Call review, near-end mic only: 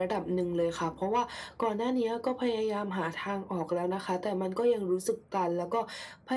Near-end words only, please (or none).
none